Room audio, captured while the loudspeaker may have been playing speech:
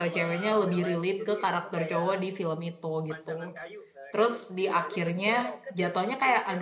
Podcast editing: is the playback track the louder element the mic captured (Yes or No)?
No